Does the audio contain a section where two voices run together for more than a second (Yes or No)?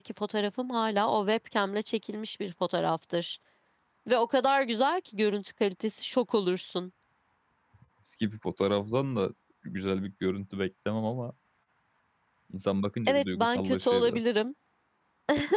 Yes